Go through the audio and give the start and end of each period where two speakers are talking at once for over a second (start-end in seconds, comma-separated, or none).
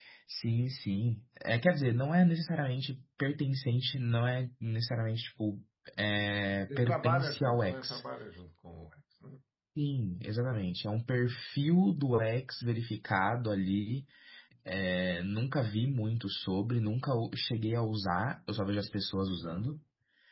6.8-8.0